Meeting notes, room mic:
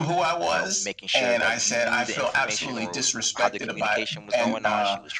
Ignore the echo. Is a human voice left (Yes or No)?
Yes